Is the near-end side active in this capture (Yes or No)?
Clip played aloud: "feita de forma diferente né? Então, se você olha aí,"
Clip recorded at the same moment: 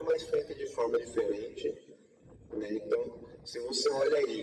No